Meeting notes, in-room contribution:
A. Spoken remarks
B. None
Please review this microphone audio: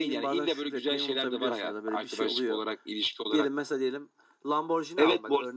B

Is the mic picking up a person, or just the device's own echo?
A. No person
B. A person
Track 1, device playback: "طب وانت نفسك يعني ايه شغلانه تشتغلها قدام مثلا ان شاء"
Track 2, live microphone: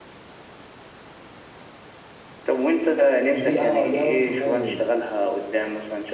B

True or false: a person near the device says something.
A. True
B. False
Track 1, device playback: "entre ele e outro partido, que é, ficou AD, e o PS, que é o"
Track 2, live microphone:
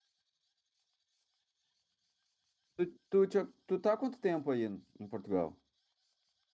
A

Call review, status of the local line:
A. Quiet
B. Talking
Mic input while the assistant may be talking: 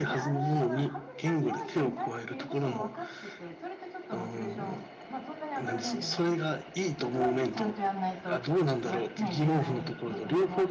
B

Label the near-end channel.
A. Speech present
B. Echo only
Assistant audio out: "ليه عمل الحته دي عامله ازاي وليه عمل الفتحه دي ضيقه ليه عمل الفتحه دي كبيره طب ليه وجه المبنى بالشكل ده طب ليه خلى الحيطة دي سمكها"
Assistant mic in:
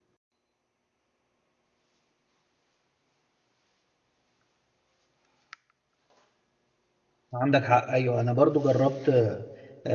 A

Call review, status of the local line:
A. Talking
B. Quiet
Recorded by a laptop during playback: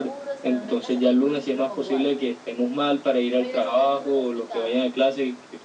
A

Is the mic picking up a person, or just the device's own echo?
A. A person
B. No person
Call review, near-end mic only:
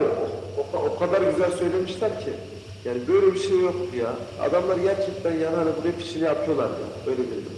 B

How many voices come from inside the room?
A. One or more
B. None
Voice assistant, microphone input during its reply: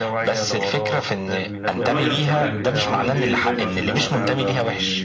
A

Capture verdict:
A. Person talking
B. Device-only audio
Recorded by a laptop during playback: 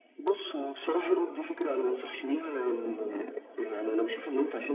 B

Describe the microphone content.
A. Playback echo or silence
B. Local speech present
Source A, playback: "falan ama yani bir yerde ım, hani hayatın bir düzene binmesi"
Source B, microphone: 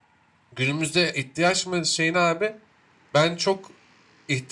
B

